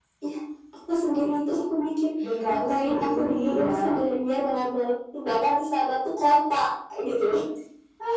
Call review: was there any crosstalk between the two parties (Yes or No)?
Yes